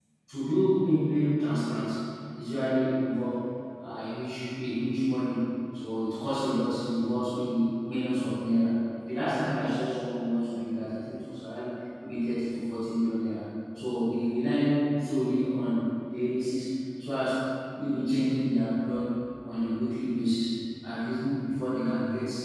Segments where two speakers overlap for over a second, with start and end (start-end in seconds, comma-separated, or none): none